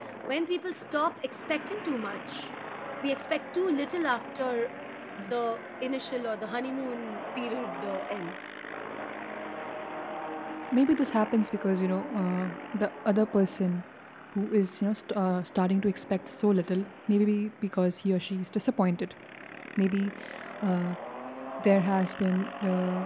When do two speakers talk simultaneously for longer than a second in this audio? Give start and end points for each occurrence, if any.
none

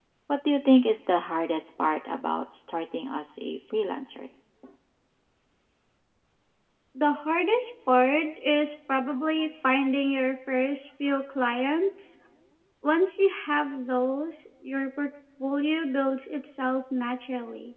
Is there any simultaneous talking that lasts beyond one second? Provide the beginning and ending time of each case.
none

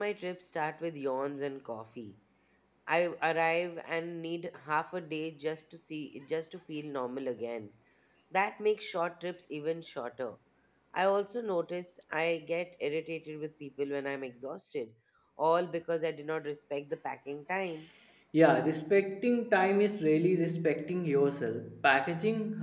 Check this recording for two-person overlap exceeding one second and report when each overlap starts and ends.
none

